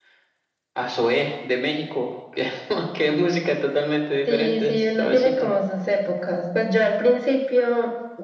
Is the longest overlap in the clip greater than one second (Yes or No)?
Yes